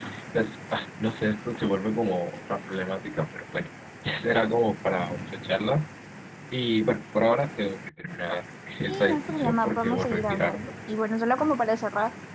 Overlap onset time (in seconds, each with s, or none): 8.9 s